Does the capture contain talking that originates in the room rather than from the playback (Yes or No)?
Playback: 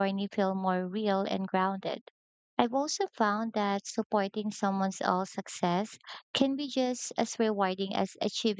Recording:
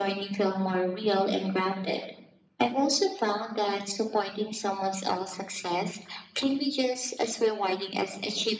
No